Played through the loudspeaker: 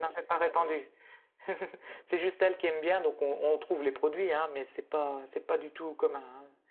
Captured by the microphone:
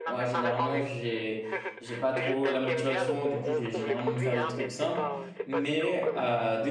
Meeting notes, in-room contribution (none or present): present